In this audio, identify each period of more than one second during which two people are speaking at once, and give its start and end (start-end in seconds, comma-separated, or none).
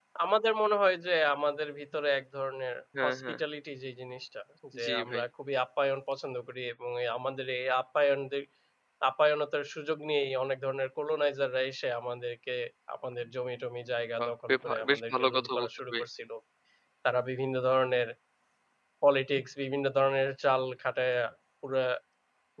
14.2-16.0